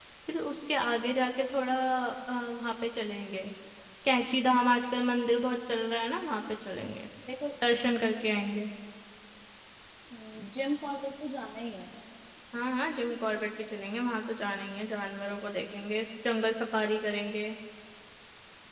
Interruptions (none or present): none